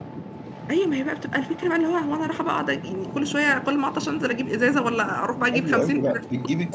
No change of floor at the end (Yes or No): No